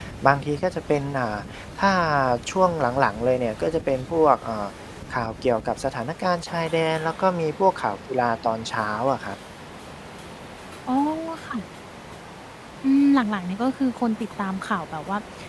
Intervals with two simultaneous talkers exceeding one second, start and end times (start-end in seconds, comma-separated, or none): none